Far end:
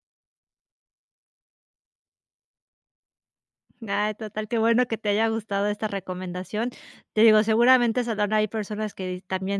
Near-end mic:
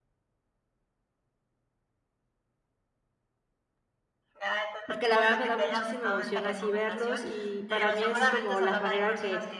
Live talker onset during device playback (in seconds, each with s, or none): 4.9 s